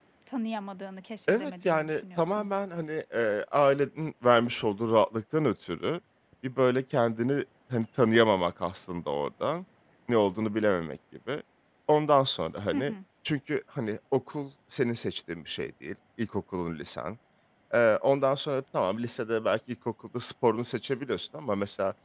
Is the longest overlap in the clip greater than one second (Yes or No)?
Yes